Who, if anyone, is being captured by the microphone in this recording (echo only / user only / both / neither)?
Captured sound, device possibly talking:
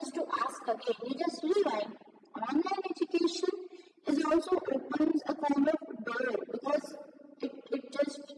echo only